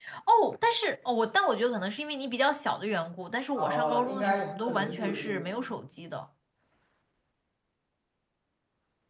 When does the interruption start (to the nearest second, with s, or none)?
4 s